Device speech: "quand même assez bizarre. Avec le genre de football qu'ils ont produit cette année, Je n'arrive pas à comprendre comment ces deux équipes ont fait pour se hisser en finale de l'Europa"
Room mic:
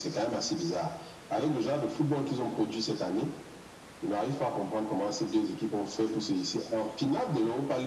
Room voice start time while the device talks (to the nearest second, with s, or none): none